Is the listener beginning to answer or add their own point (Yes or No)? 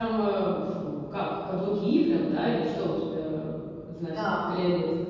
Yes